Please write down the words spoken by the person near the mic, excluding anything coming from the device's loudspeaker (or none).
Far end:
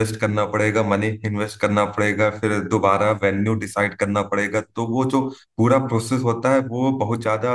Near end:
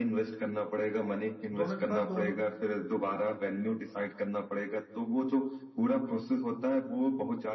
दोनों के पास दो दो